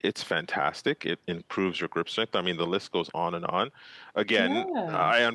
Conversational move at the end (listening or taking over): listening